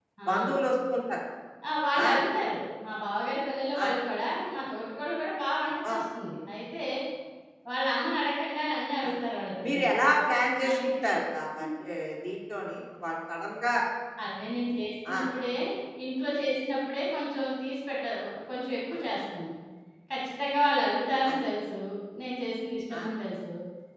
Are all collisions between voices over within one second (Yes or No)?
Yes